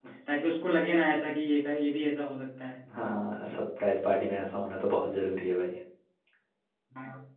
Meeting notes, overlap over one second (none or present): none